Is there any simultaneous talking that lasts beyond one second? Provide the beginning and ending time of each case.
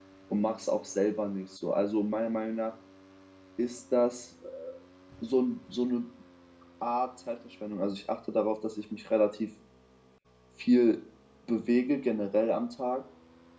none

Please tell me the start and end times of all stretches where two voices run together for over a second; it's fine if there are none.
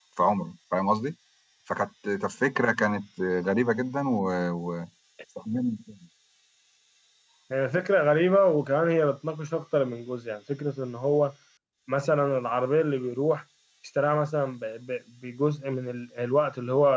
none

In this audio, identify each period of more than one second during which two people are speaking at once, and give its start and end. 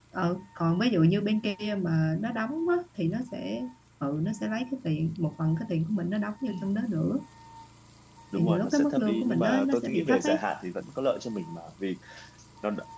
8.4-10.4

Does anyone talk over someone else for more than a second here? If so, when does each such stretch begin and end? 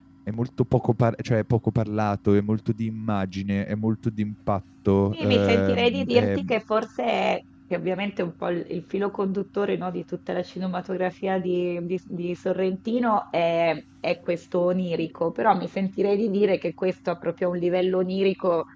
5.1-6.4

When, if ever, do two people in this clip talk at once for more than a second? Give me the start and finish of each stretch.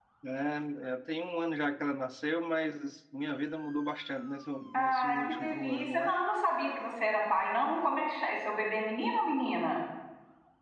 4.7-6.2

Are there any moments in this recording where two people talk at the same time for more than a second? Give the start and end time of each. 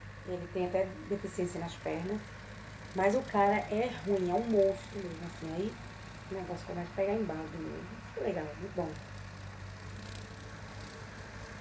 none

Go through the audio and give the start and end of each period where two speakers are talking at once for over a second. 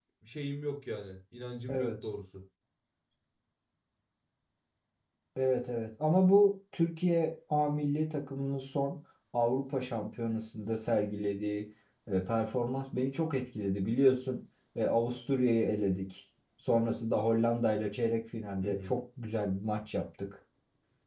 none

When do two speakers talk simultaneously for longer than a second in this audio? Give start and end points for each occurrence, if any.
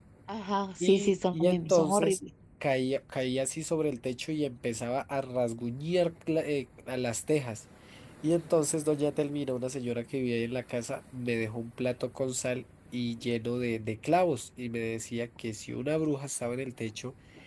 0.8-2.2

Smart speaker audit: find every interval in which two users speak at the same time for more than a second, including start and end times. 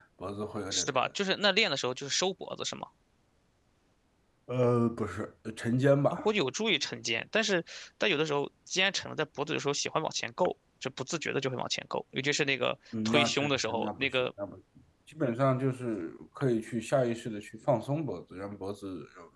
13.1-14.2

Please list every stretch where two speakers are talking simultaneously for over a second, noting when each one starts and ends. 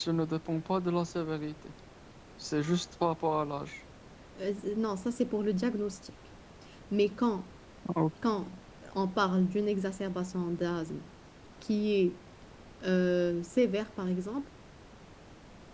none

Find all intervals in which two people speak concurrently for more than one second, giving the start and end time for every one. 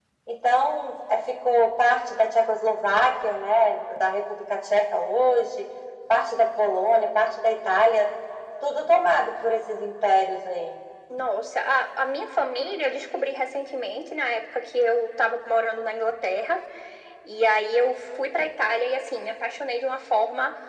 none

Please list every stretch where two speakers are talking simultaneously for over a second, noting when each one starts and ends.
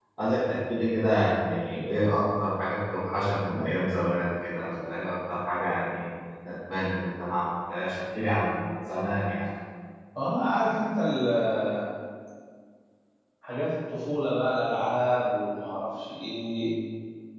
none

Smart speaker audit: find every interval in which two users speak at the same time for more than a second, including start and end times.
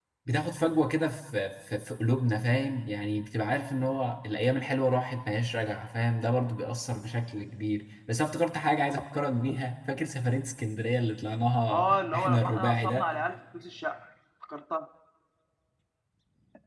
11.7-13.1

